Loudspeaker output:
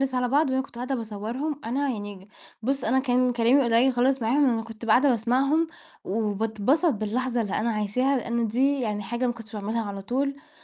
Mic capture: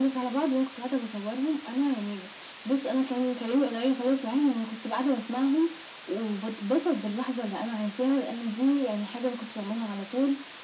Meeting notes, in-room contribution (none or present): none